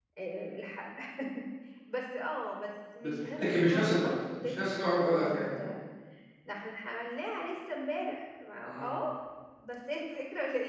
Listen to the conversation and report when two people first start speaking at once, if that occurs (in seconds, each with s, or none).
3.0 s